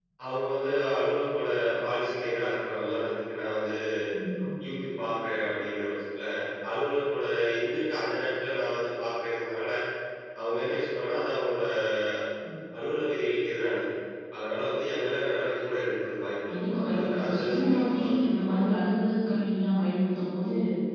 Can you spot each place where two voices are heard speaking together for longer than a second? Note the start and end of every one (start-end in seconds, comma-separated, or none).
16.5-18.6